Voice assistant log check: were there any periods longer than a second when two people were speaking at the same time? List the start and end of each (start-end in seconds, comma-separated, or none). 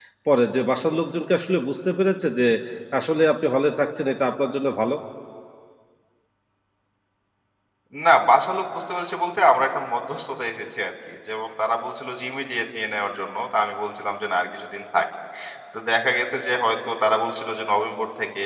none